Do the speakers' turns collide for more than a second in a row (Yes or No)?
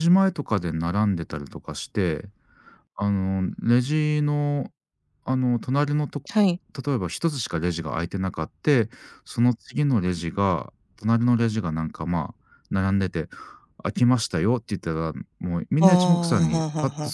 Yes